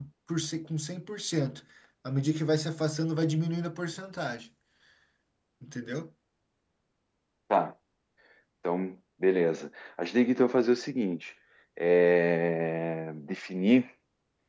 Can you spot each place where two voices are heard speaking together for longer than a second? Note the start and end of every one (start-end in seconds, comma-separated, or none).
none